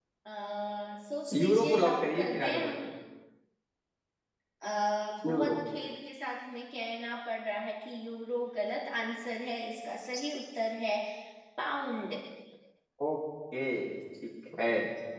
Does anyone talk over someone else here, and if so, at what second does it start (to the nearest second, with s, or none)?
1 s